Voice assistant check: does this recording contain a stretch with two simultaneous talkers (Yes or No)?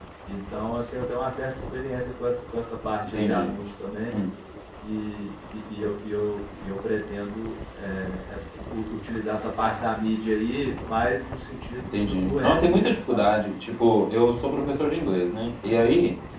Yes